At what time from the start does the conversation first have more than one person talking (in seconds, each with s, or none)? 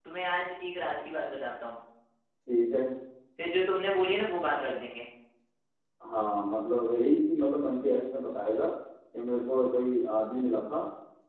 none